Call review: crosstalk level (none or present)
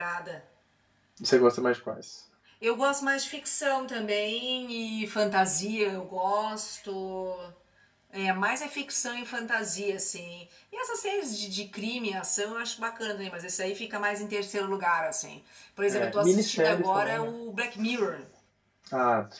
present